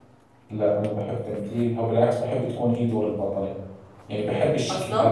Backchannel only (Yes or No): No